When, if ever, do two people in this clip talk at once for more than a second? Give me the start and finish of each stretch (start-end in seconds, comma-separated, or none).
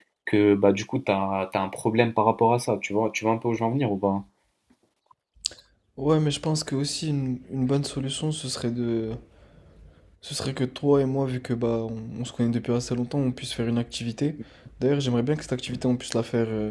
none